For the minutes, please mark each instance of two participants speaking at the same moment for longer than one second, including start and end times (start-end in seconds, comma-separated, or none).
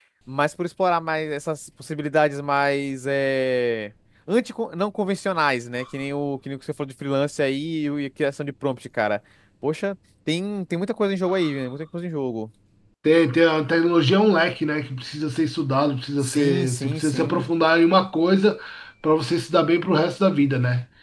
16.2-17.4